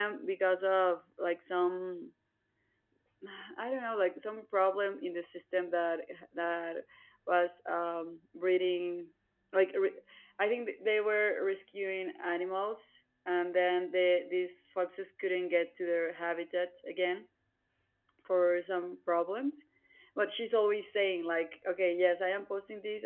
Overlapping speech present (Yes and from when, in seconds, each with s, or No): No